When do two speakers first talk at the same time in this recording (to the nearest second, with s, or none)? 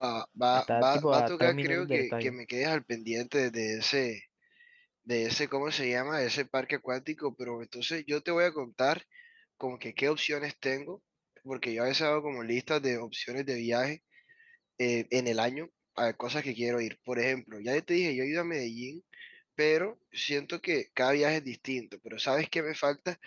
1 s